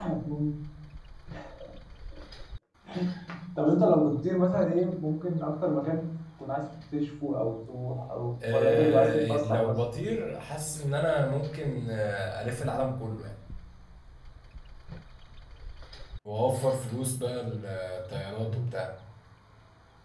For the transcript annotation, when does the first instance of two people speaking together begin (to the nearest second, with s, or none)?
9 s